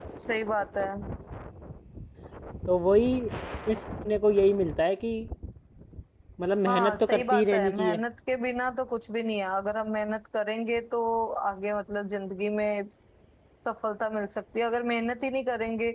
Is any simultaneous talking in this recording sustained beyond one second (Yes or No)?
Yes